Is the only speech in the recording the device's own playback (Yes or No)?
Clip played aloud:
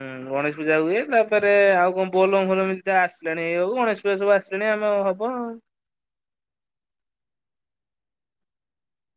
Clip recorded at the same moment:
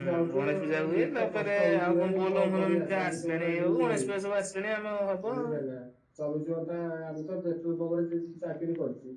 No